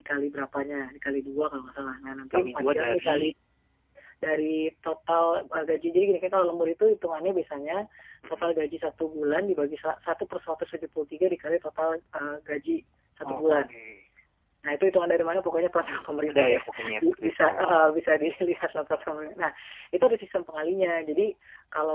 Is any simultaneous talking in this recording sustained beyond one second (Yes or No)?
Yes